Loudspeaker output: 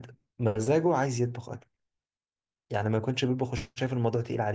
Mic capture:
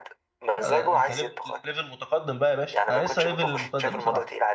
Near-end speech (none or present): present